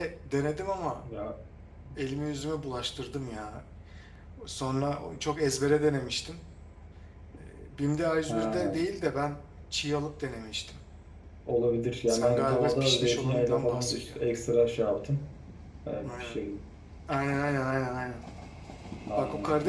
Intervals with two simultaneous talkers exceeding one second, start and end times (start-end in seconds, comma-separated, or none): 12.1-14.2